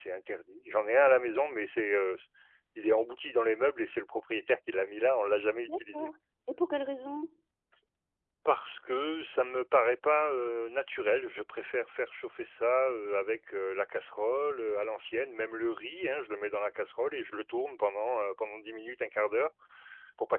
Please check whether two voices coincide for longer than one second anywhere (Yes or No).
No